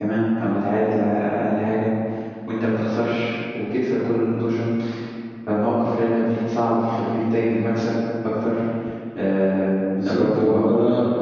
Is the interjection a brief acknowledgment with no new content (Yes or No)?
No